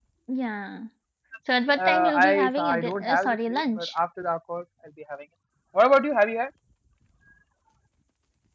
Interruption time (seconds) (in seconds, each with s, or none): 1.8 s